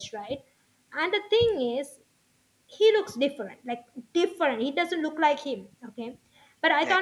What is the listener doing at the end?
listening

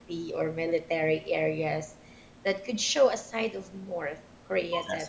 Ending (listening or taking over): listening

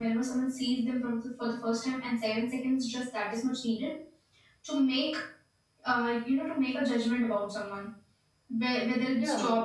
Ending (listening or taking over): listening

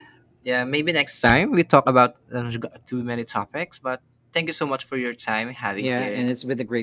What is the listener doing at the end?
taking over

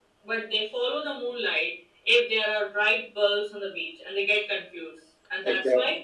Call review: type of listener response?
listening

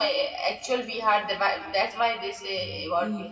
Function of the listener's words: taking over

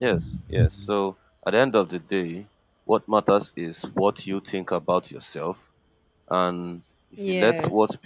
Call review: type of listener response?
listening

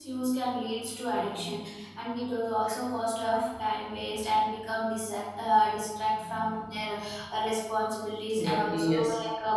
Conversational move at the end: listening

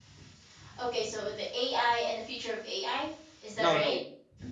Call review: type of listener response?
taking over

